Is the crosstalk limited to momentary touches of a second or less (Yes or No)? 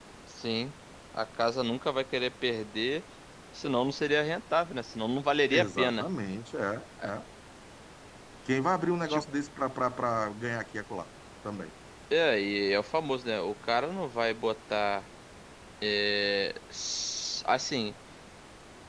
Yes